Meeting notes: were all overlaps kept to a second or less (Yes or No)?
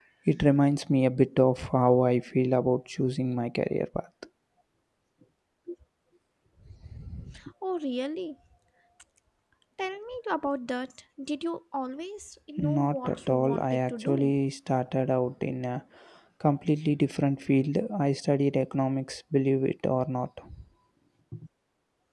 No